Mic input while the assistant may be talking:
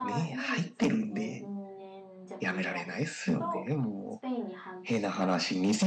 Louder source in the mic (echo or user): echo